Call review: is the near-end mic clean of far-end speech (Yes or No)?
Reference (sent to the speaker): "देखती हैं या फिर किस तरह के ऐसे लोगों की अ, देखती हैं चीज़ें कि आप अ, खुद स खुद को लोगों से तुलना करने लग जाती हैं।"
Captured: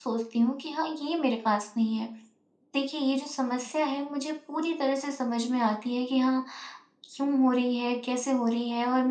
Yes